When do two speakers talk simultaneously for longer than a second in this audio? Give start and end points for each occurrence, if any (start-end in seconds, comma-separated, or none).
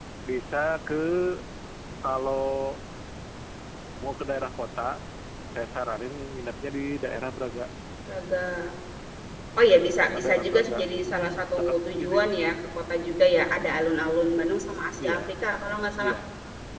10.0-12.2